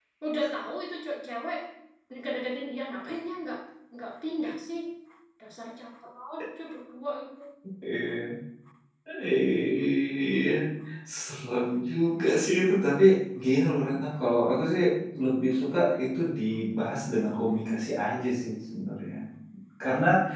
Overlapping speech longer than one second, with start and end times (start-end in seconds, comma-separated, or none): none